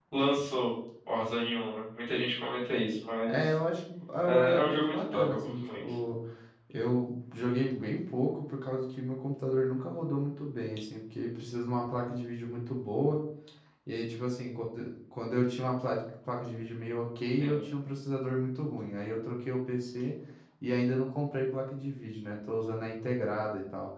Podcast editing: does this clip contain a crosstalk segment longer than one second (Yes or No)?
Yes